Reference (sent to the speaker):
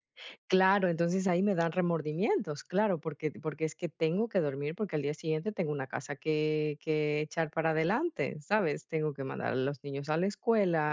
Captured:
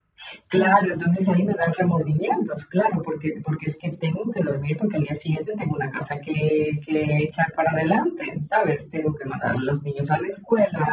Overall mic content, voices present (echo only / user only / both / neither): both